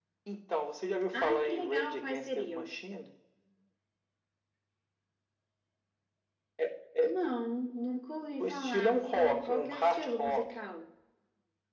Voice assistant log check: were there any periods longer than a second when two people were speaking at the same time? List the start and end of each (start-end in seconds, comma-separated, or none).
1.1-2.7, 8.4-10.5